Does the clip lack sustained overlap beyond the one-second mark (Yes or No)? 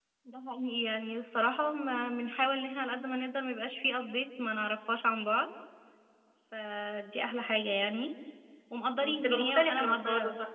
No